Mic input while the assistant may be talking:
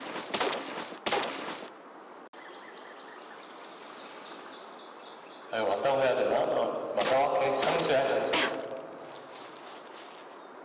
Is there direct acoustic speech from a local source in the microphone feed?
Yes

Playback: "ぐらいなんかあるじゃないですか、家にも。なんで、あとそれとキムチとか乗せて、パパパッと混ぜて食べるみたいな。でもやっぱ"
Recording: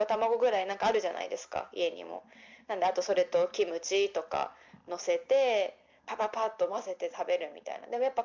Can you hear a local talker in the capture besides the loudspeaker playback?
No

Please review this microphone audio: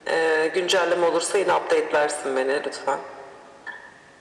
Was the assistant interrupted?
No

